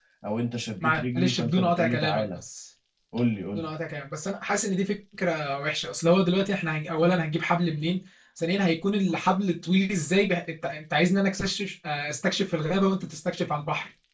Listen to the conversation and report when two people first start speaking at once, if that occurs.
1 s

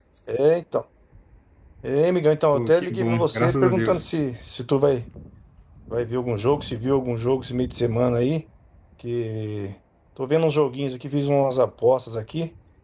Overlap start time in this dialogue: 3 s

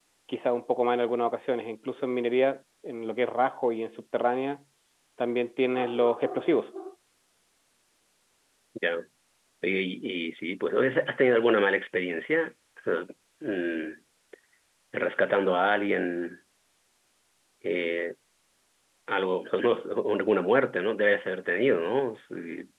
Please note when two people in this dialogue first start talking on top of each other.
none

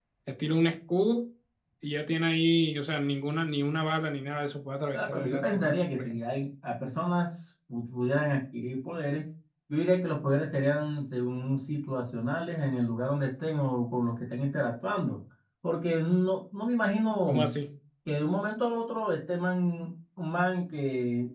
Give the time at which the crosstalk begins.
5 s

